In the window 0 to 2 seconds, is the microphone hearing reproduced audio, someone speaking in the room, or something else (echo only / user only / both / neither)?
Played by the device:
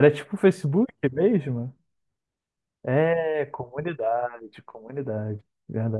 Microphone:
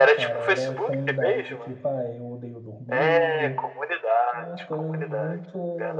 both